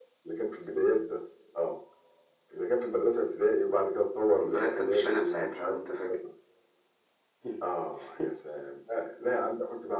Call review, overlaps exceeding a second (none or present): present